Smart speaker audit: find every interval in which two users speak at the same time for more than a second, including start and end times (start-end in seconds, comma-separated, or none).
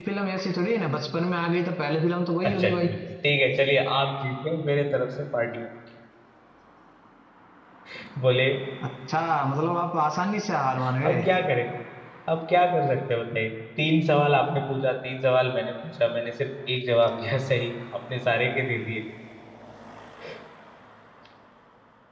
none